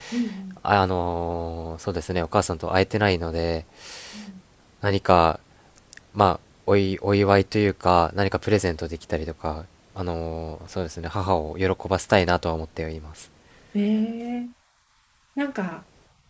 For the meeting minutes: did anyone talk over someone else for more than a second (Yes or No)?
No